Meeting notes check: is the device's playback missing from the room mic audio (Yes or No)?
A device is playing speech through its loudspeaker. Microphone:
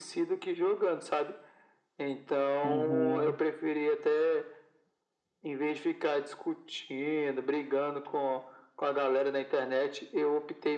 No